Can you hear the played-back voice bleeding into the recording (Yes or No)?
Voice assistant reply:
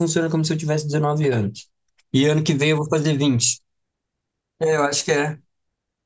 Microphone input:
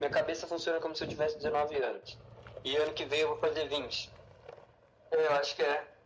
Yes